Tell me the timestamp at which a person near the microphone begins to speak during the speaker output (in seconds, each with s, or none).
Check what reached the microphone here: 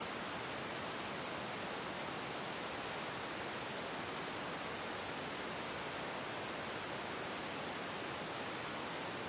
none